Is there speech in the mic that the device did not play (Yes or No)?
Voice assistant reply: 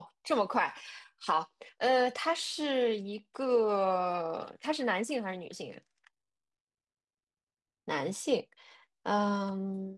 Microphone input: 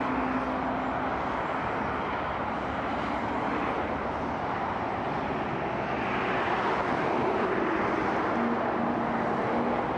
No